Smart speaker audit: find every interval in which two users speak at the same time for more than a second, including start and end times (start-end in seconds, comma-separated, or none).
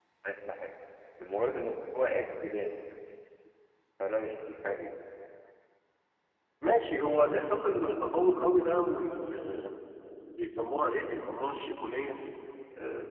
none